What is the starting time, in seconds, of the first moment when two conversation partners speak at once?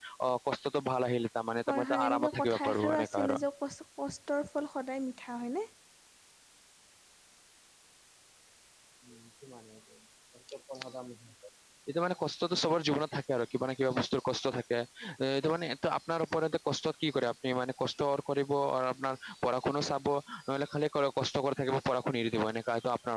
1.7 s

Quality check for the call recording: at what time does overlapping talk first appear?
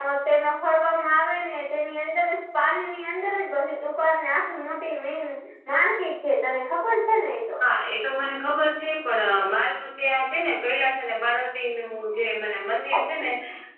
none

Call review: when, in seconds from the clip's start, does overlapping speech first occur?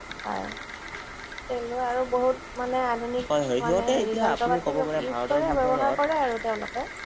3.7 s

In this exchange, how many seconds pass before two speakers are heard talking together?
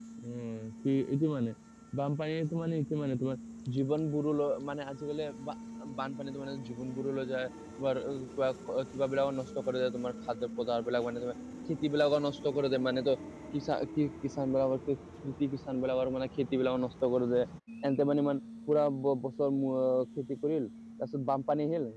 none

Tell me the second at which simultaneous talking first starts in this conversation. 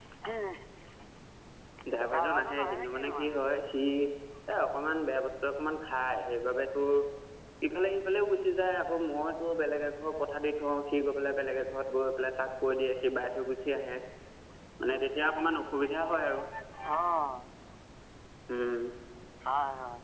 2.1 s

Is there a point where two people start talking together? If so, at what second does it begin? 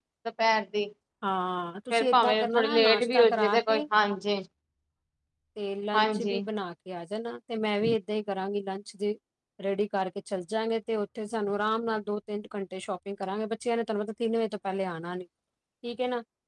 1.9 s

